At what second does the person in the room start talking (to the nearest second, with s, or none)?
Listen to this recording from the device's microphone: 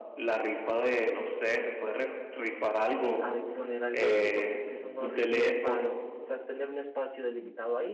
3 s